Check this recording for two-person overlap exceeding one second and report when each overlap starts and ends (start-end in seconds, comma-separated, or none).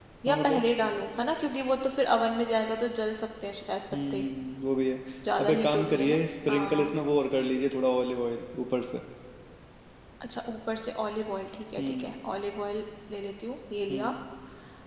5.4-6.9